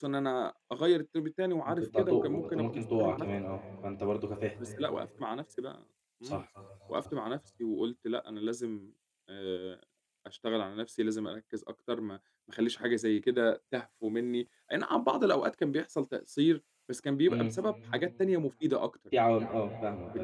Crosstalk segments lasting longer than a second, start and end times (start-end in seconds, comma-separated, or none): 1.7-3.3